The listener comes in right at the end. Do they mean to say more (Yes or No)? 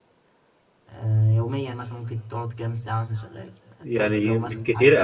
Yes